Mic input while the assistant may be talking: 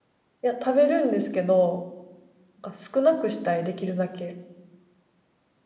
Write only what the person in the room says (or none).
いや、食べるんですけど、なんか少なくしたい、できるだけ。